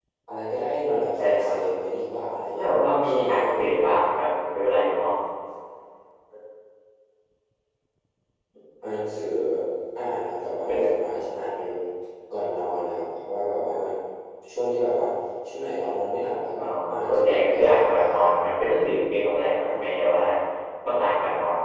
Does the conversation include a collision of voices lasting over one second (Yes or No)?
Yes